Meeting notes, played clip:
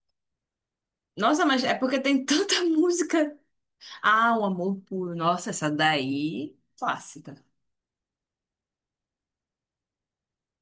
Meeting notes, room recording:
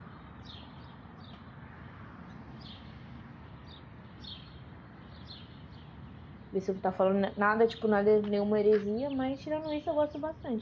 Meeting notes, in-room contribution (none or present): present